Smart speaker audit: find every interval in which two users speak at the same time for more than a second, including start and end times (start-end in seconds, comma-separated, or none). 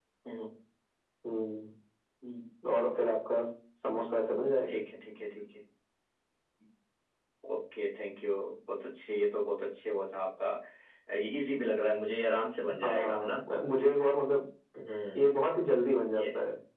none